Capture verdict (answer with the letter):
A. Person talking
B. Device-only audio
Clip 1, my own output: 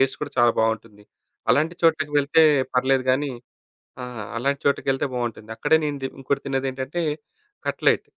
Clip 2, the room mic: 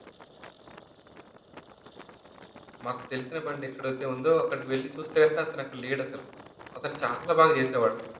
A